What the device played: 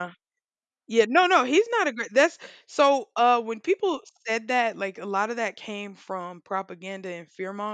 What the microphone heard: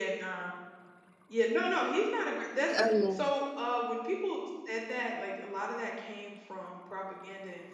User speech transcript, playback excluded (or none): oh, yeah.